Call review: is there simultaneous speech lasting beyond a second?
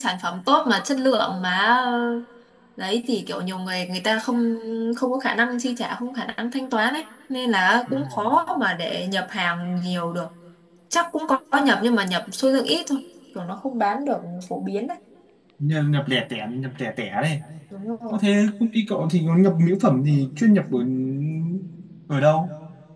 No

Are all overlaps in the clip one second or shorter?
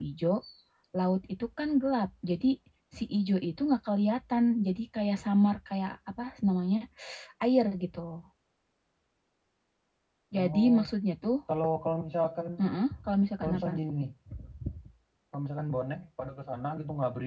Yes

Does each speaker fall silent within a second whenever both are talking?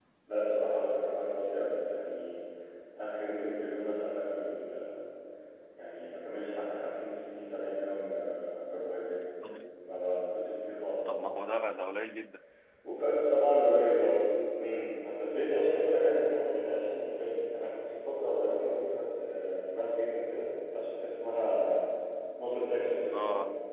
Yes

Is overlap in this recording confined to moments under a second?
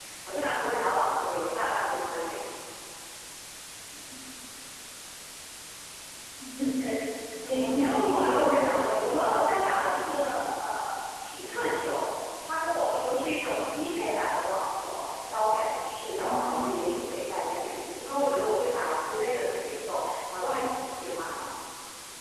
No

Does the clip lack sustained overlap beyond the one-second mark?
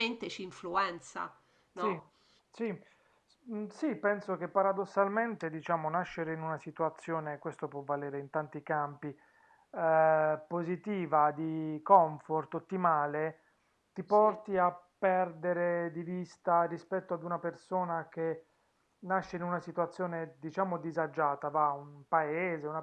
Yes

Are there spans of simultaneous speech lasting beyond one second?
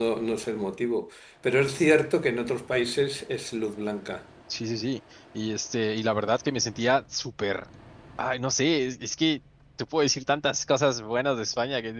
No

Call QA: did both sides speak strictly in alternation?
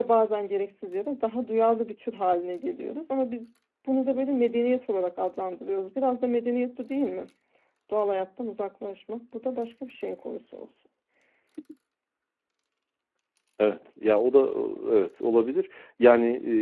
Yes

